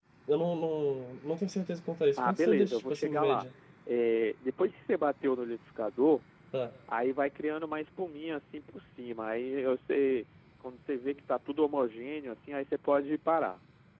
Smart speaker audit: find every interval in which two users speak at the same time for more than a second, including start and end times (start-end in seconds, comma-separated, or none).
2.2-3.5